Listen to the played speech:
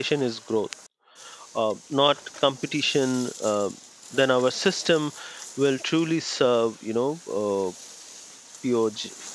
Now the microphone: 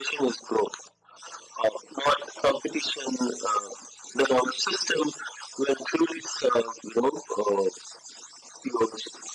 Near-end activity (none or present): none